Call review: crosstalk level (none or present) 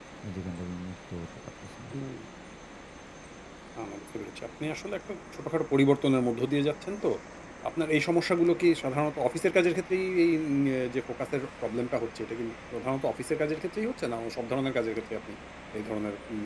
none